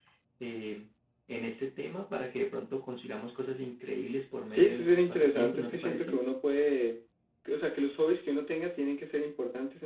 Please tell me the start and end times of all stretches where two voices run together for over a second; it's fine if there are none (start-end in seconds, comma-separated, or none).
4.5-6.1